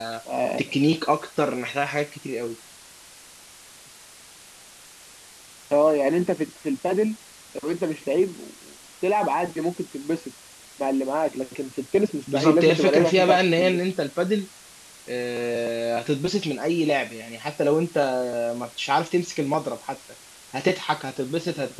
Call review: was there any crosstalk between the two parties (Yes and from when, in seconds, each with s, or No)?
Yes, from 12.3 s